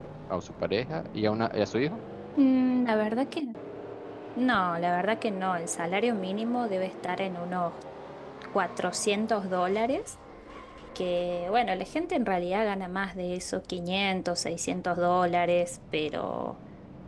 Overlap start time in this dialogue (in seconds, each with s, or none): none